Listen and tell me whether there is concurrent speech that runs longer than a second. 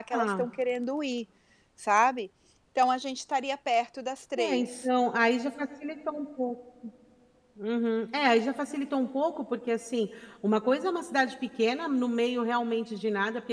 No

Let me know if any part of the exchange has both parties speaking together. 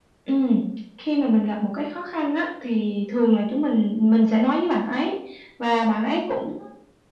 No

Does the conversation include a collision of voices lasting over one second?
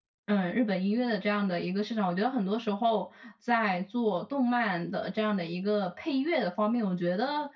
No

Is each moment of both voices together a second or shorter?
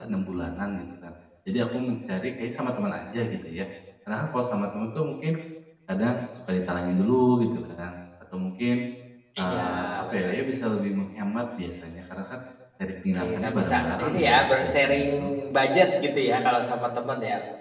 No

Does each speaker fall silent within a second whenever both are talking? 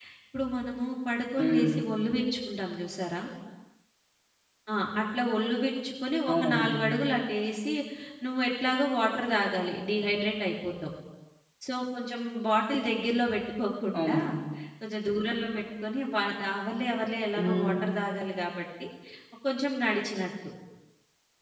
Yes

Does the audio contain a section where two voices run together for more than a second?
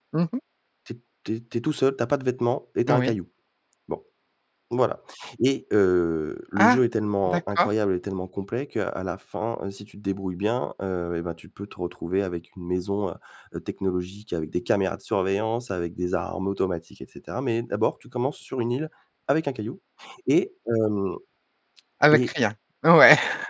No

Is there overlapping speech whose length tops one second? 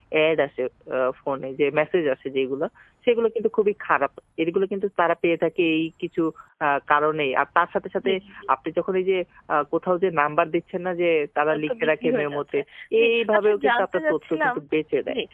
Yes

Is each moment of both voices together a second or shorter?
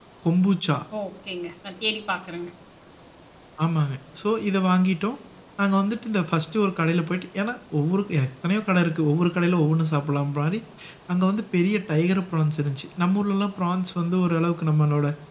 Yes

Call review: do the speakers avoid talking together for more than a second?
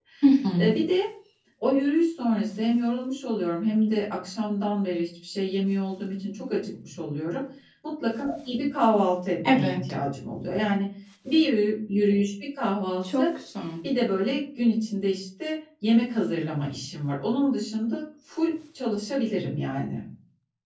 Yes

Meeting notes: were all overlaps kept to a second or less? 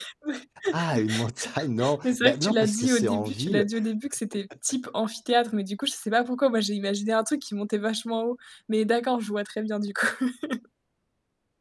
No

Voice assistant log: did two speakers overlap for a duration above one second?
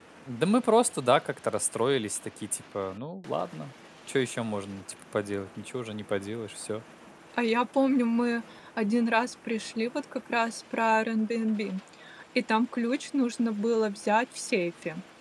No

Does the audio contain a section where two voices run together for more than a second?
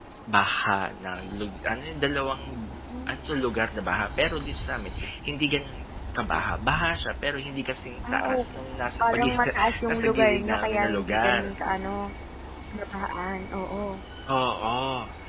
Yes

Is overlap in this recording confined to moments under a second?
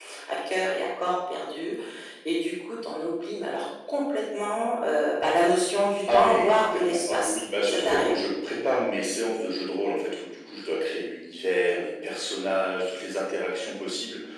No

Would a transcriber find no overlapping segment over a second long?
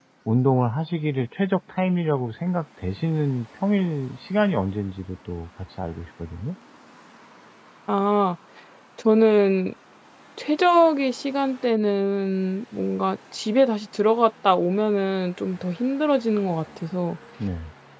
Yes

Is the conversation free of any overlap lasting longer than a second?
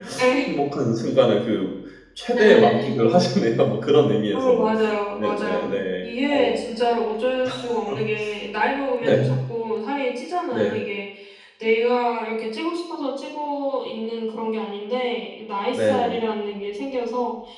No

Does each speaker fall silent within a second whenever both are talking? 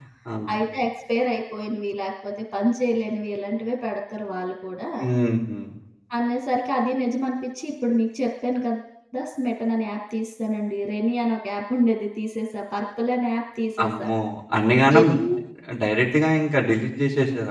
Yes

